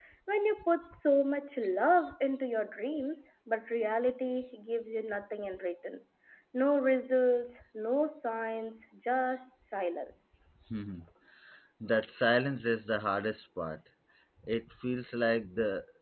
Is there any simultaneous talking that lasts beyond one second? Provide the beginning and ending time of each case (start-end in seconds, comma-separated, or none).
none